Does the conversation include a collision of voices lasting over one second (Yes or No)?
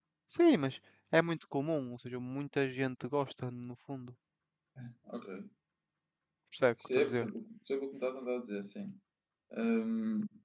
No